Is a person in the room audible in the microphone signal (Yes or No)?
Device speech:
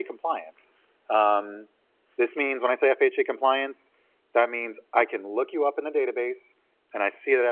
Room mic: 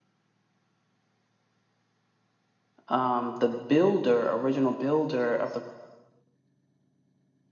Yes